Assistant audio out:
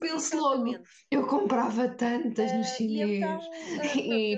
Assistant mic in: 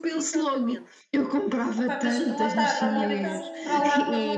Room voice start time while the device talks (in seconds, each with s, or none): 1.7 s